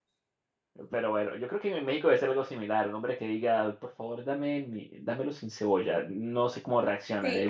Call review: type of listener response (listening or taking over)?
taking over